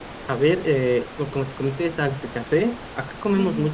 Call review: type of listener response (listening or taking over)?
taking over